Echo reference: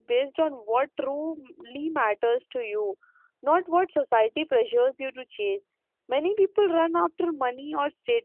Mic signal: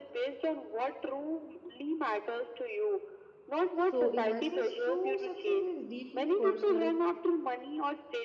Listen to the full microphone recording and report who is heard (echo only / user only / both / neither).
both